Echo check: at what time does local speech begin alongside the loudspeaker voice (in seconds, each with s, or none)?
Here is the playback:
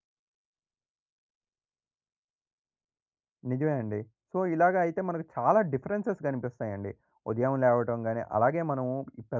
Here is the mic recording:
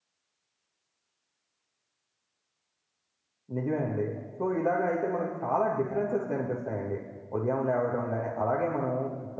none